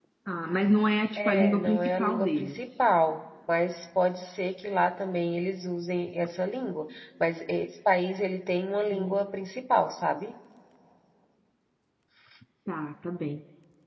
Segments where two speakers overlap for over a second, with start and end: 1.2-2.7

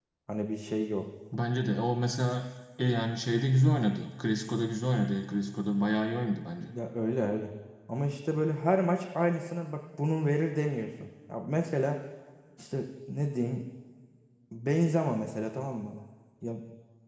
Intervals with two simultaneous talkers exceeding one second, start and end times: none

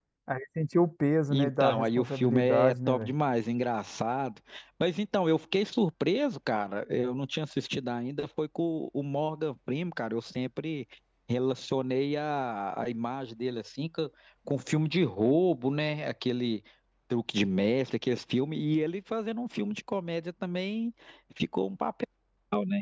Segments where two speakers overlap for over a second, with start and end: 1.3-3.1

